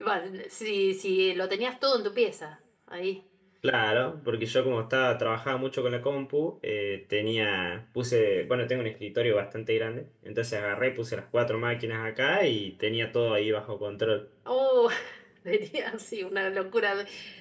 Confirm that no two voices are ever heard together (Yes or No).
Yes